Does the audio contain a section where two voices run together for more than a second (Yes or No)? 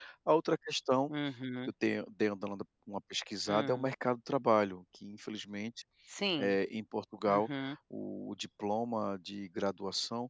No